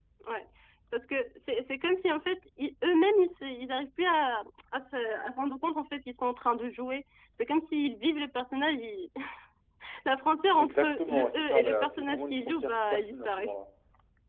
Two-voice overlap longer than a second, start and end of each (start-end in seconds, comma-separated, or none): 10.6-13.5